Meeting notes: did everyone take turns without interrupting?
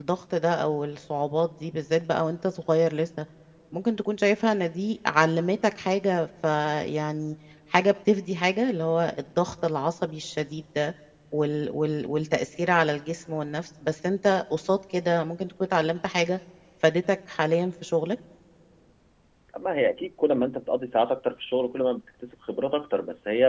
Yes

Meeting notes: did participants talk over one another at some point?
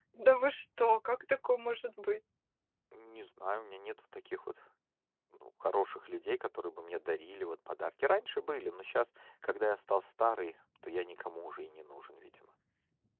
No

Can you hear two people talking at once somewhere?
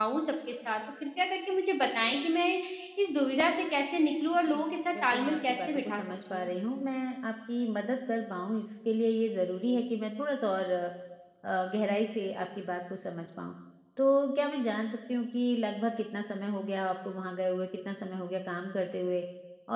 Yes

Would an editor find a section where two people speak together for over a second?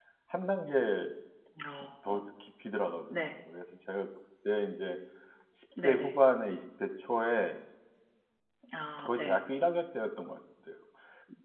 No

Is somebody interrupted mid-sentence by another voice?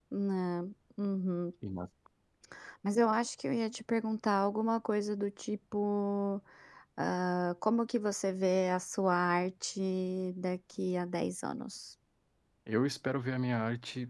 No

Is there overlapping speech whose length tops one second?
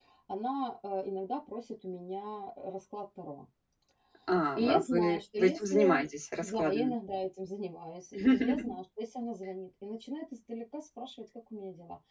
Yes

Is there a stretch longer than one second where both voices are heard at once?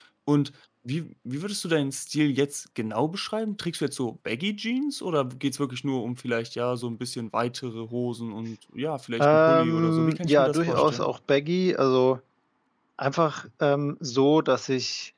Yes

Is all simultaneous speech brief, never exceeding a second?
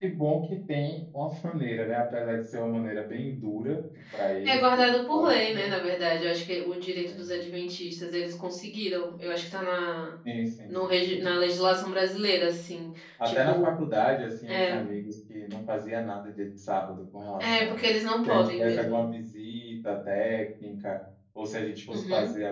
No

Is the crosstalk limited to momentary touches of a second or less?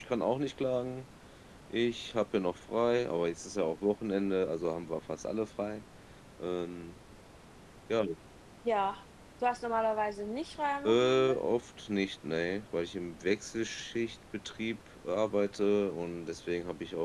Yes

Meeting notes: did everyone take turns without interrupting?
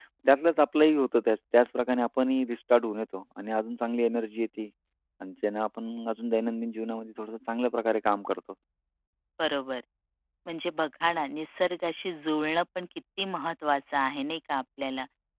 Yes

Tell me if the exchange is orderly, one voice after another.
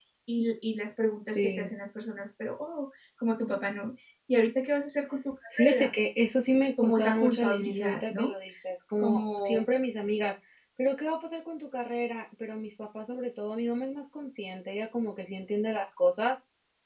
No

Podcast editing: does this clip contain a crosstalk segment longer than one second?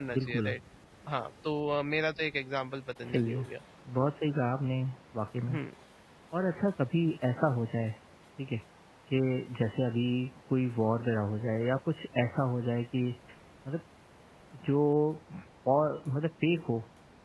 No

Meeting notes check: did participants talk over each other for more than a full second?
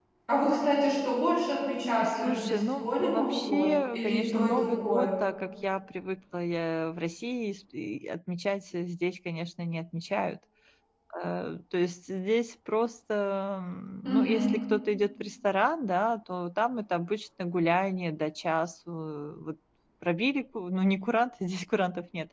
Yes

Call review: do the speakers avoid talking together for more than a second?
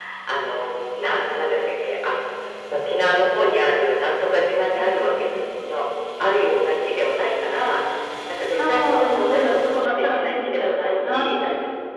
No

